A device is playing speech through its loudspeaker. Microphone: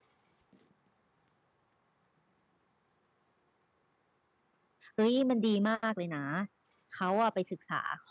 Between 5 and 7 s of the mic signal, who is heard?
user only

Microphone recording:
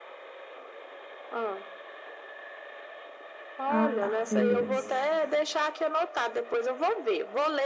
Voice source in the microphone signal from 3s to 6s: both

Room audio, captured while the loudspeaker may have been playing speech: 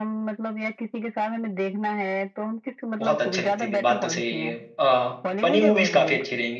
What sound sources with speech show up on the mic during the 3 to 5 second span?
both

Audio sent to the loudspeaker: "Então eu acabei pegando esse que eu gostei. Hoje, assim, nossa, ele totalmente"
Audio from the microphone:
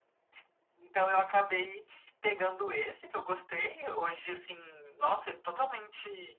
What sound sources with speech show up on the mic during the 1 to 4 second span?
echo only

